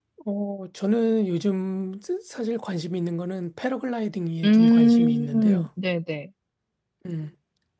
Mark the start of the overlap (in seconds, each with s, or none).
4.4 s